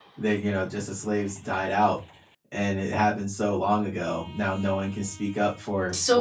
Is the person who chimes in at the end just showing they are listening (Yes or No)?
No